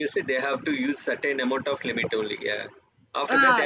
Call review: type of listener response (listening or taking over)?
taking over